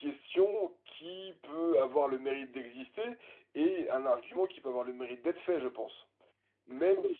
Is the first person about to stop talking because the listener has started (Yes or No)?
Yes